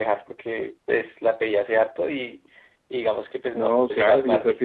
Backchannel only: No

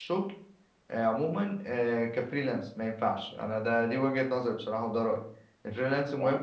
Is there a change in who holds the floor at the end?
No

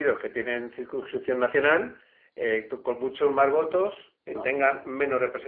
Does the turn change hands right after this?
No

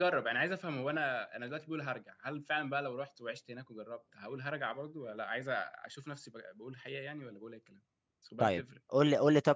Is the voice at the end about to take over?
Yes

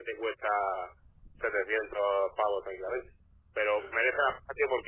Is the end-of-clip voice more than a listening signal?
No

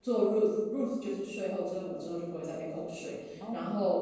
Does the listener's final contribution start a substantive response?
No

